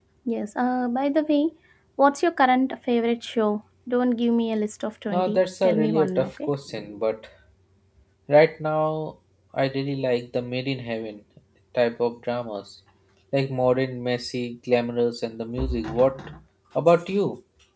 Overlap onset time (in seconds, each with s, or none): 5.1 s